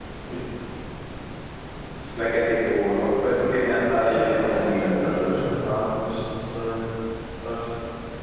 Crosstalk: present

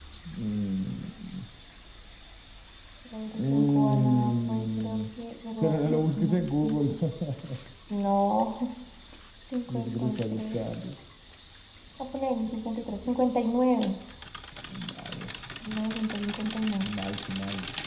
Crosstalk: present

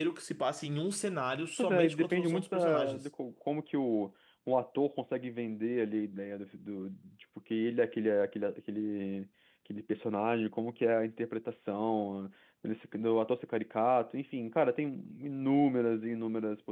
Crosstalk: present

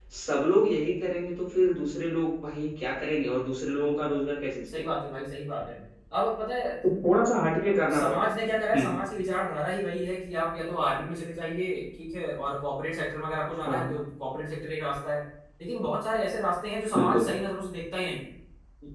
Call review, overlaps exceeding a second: none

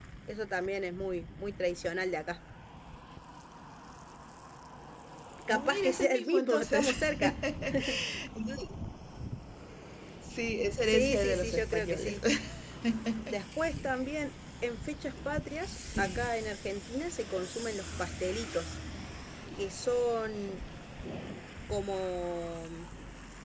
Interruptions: present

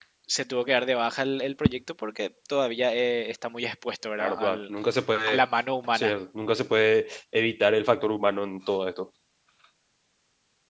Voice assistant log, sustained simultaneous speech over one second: none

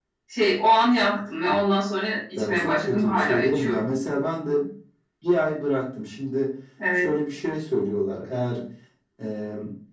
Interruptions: present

